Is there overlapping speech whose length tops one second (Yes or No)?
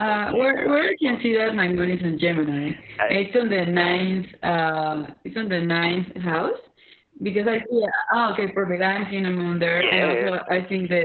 Yes